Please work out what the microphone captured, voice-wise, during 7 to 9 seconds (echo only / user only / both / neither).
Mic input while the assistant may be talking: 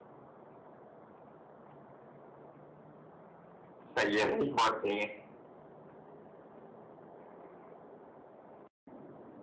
neither